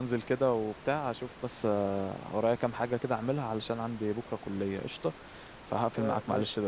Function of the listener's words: taking over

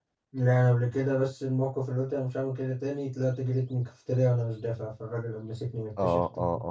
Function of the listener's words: taking over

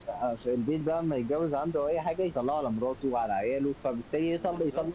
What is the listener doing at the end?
listening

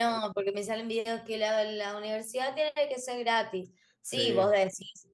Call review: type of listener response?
listening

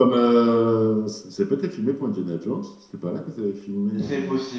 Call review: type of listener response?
taking over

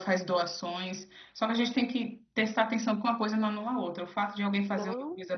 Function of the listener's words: listening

